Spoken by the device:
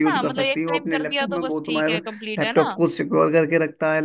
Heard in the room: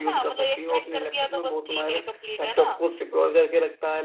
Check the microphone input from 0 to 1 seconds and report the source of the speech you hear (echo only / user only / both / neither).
echo only